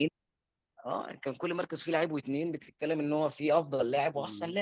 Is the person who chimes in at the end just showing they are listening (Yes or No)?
No